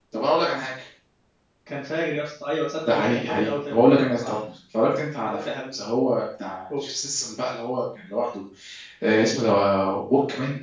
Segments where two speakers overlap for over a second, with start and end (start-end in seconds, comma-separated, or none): 2.9-4.4